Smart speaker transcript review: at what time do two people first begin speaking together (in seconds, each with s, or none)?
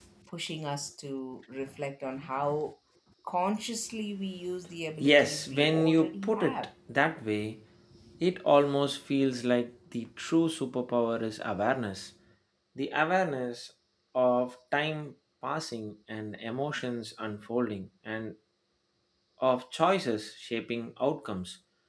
5.0 s